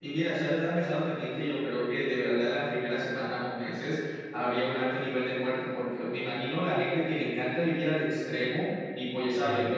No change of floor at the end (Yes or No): Yes